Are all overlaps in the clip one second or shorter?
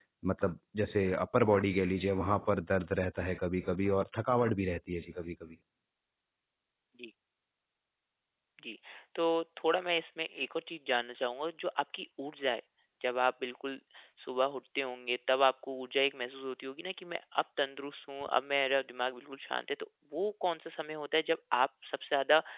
Yes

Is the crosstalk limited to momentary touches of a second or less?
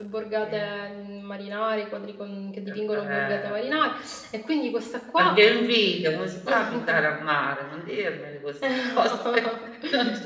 No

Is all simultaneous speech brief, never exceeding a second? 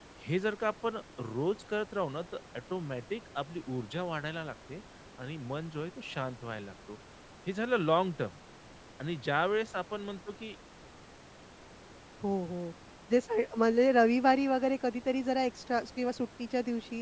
Yes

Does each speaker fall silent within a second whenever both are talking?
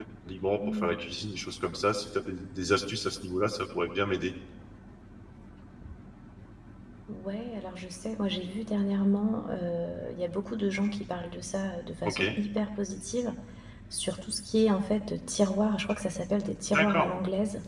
Yes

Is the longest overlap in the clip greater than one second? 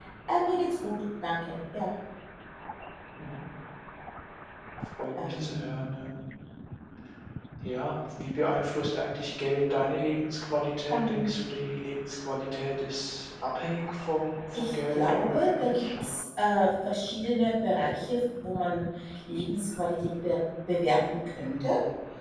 Yes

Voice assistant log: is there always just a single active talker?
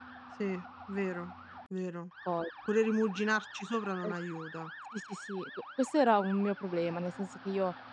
Yes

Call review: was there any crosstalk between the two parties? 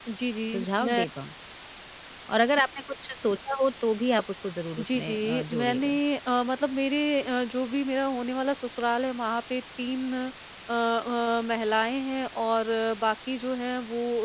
Yes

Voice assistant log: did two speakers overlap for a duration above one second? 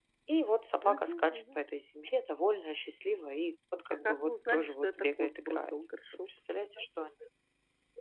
Yes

